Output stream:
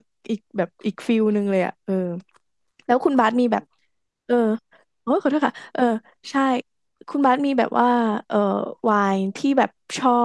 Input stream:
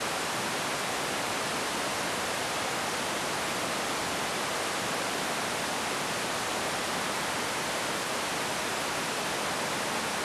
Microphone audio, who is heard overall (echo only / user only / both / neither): neither